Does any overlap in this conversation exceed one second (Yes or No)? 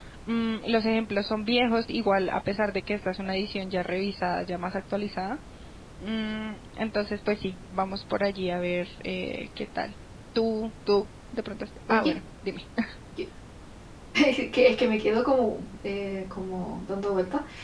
No